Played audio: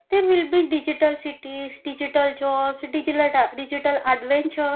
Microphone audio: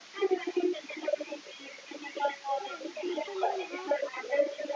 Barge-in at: 3 s

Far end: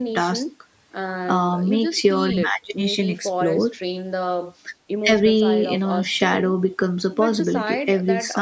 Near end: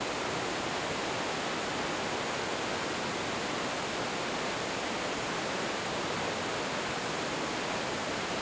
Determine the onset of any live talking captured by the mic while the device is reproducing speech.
none

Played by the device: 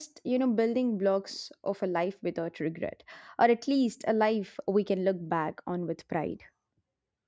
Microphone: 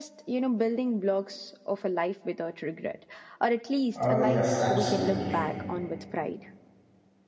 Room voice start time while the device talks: 4 s

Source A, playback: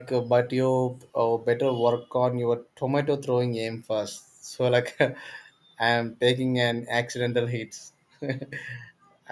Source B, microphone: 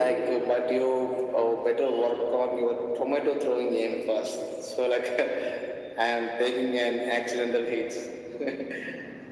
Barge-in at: none

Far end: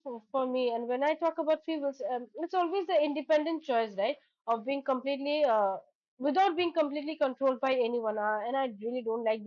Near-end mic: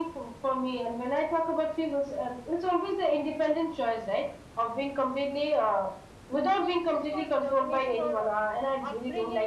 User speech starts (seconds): 6 s

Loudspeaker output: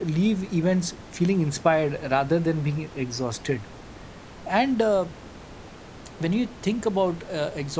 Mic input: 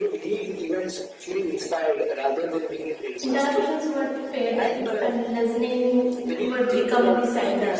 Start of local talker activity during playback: 3 s

